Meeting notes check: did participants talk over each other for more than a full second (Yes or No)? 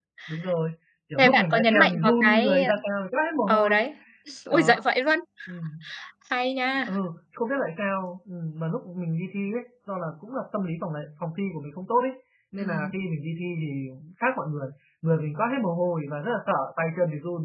Yes